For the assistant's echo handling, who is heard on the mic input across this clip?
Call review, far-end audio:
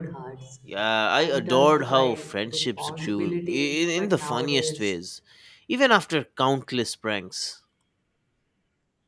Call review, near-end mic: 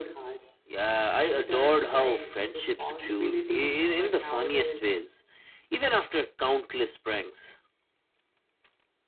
echo only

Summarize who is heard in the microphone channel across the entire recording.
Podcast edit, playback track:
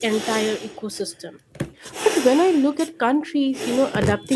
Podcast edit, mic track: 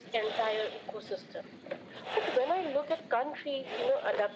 echo only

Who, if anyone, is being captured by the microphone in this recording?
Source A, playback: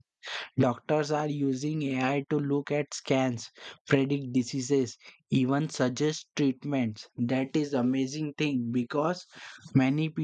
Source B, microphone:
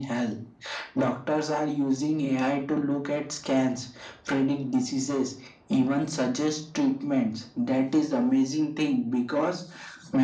echo only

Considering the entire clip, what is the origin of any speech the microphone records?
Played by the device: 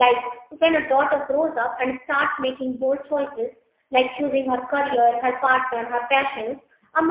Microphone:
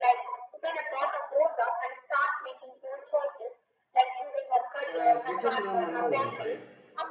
both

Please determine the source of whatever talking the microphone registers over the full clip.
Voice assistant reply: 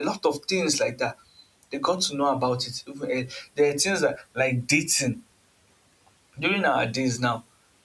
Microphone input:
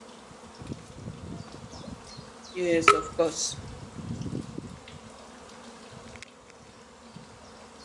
user only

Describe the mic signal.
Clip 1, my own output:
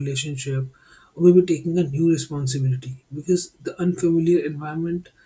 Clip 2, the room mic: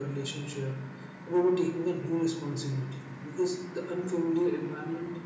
echo only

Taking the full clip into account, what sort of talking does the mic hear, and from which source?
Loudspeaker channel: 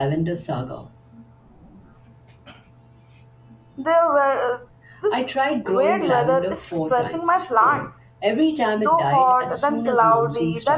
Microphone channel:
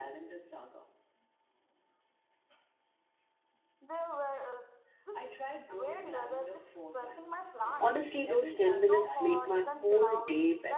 both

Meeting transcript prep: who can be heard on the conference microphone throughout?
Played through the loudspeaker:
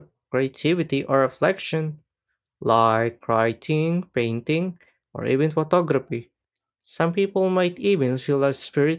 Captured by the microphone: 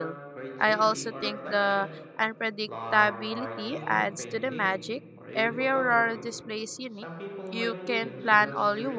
both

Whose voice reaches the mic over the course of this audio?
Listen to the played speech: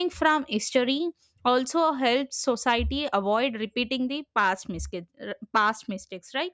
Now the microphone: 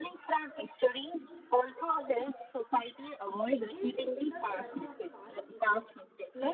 both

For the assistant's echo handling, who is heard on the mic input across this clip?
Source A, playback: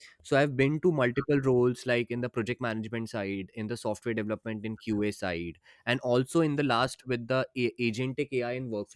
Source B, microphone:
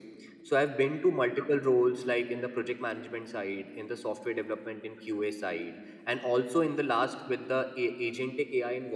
echo only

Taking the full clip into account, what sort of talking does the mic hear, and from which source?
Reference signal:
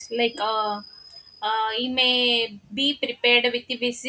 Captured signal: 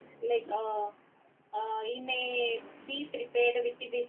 echo only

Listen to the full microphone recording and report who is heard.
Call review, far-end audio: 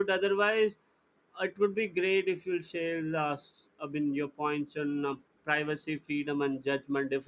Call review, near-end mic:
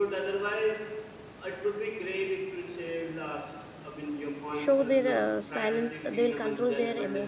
both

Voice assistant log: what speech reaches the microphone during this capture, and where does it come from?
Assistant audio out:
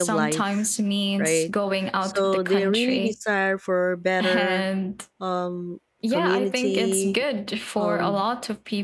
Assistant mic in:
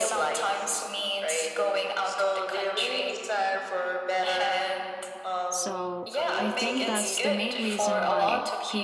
both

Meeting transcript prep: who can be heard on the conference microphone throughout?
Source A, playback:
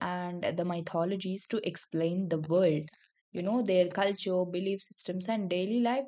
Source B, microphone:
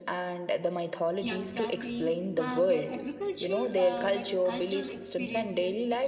both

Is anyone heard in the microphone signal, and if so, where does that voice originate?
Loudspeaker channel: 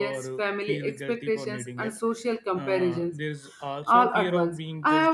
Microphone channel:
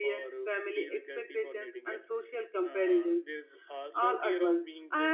echo only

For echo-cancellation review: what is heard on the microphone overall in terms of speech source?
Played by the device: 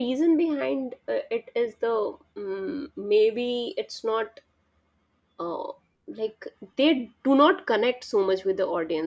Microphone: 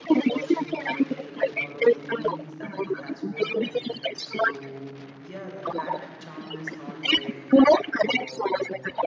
both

